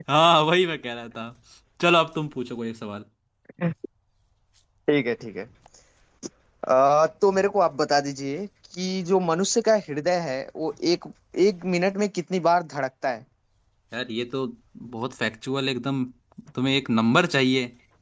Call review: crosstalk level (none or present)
none